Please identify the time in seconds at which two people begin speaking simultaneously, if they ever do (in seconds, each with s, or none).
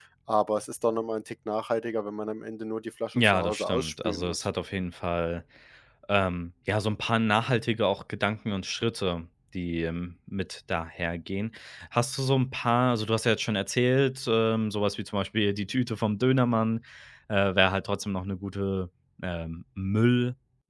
3.1 s